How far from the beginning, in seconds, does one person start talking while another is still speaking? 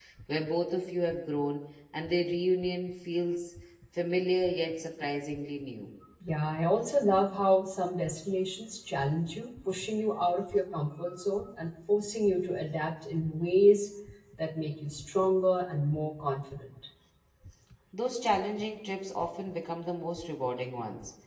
none

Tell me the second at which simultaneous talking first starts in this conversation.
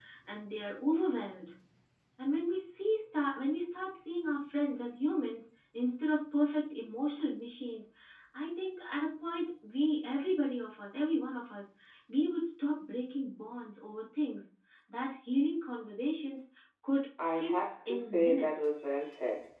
17.2 s

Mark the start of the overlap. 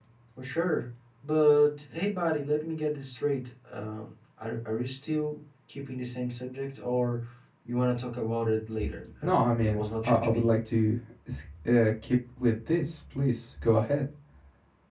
9.2 s

